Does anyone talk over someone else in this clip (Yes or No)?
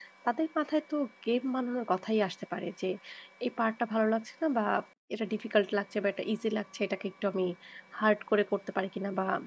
No